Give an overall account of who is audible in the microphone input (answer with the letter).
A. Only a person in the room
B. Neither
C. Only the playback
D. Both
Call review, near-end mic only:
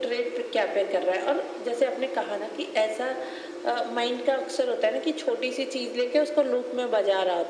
C